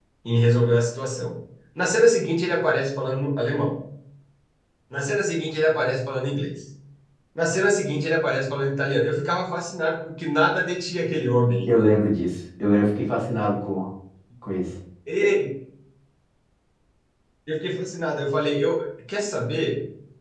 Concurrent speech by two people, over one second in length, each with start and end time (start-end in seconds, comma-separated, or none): none